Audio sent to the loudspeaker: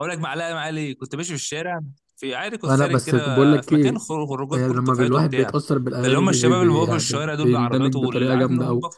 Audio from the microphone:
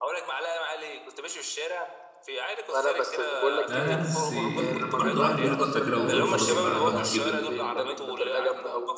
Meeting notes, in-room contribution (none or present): present